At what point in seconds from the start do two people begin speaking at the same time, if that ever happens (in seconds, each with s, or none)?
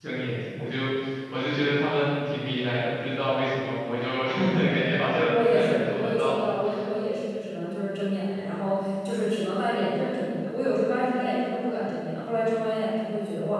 5.1 s